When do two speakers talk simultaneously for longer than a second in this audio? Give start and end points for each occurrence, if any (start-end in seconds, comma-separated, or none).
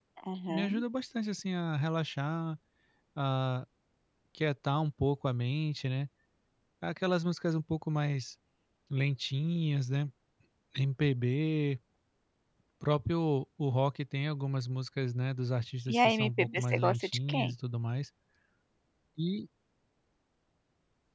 15.9-17.5